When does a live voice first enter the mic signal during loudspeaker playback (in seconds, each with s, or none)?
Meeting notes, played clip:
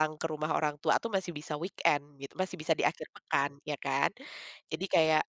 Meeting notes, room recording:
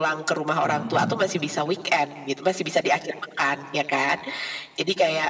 0.6 s